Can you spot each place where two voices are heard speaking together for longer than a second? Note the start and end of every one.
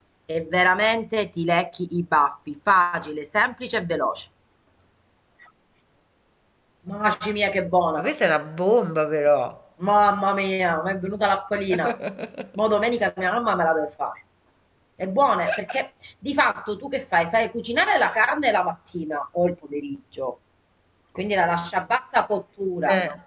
none

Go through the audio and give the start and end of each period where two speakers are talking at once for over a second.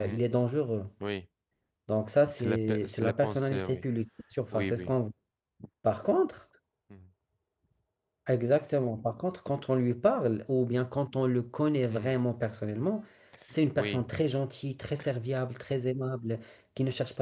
2.3-3.8

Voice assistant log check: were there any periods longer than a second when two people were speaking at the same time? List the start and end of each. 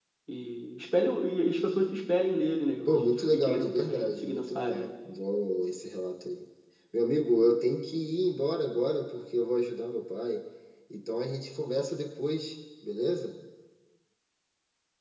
2.9-4.9

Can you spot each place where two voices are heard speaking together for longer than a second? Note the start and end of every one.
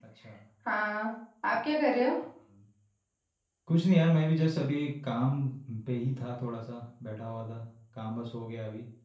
none

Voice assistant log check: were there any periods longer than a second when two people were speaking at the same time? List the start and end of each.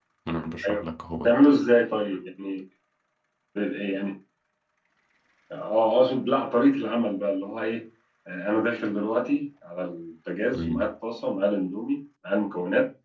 none

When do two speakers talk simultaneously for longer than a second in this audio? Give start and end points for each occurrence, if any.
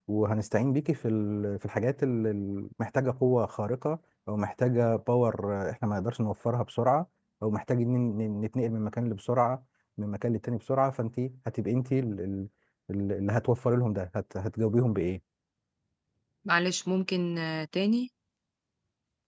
none

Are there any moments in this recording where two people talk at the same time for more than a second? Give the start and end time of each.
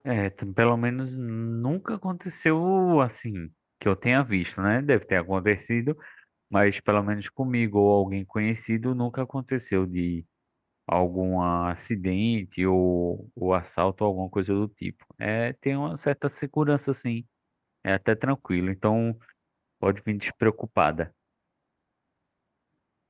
none

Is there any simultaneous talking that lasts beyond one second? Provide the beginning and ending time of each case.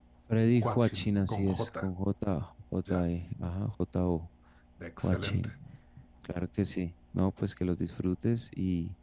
0.6-1.8

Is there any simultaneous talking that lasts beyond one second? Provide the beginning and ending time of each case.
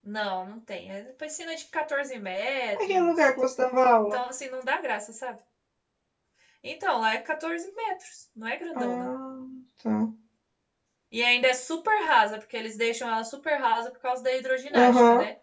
none

